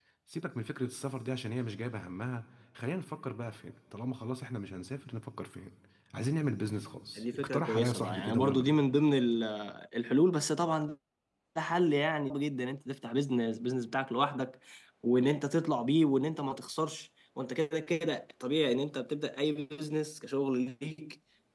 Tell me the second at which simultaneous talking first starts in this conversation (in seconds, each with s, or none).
7.2 s